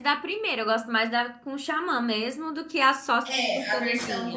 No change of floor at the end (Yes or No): No